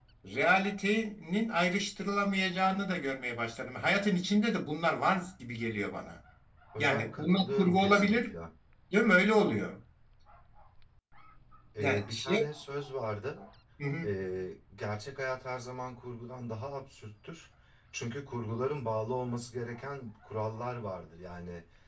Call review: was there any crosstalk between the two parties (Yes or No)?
Yes